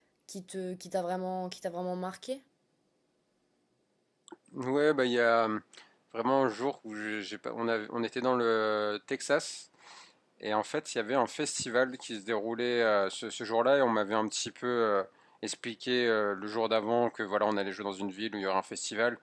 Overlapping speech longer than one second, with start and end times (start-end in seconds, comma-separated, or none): none